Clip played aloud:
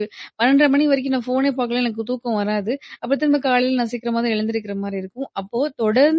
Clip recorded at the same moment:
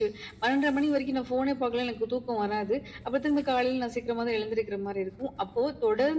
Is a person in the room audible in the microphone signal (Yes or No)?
No